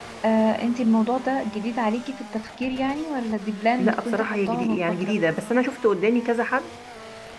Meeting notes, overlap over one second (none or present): present